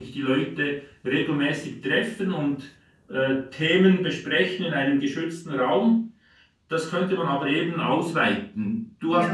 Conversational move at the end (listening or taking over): listening